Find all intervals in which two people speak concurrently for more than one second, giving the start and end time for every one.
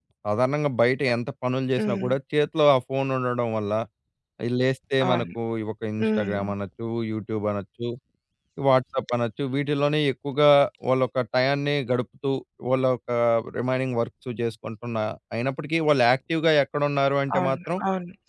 none

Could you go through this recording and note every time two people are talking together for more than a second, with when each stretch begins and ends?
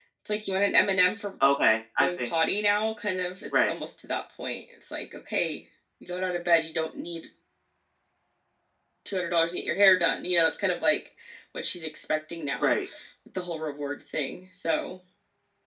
none

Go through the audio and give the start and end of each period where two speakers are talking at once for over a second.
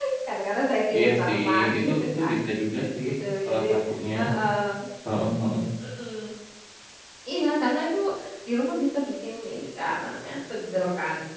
0.9-2.3

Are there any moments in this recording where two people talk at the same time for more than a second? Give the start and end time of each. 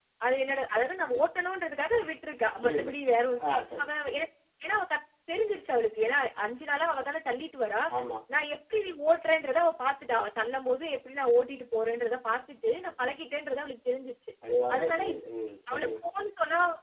none

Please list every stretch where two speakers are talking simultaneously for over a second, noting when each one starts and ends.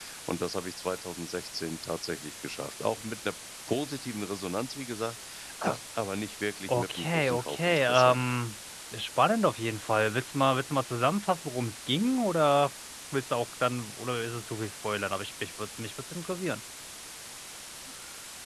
6.7-8.2

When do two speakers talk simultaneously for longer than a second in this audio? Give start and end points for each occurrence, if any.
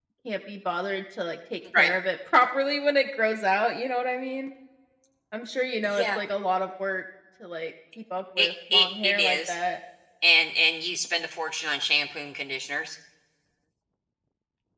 8.4-9.6

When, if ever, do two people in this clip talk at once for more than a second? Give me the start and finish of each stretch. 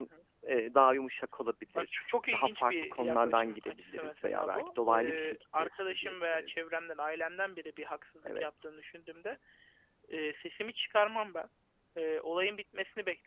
2.3-6.7

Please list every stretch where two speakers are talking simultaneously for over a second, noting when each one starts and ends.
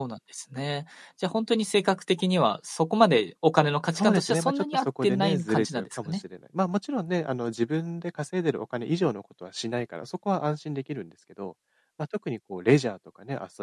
4.0-6.2

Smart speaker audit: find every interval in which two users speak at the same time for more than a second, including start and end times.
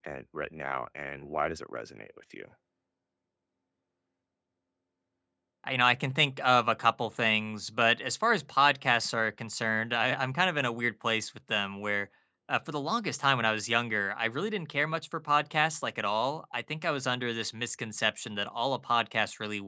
none

